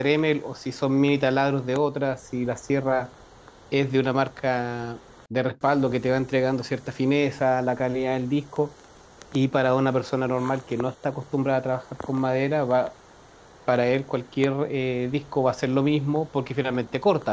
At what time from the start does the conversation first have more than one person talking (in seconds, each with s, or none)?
none